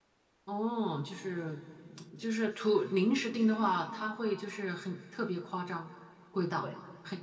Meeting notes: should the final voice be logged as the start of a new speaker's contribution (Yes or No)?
Yes